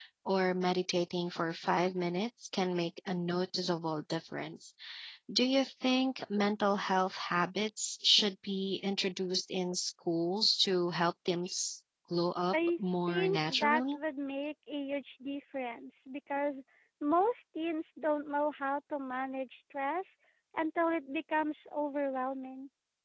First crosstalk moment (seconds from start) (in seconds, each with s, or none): 12.5 s